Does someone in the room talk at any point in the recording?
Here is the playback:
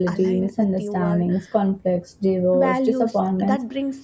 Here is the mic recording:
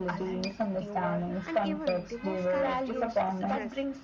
Yes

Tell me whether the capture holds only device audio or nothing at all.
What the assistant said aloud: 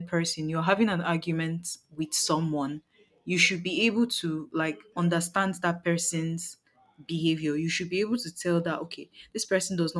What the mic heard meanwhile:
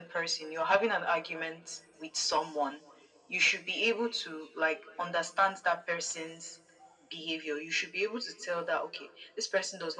Yes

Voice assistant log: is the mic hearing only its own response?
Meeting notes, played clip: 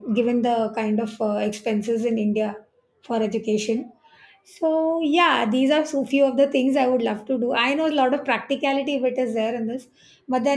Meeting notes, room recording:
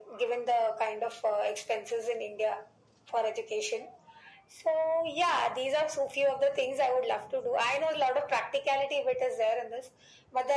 Yes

